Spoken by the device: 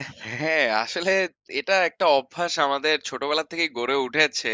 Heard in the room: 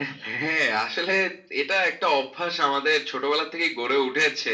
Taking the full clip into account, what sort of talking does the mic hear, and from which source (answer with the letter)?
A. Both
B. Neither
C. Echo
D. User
C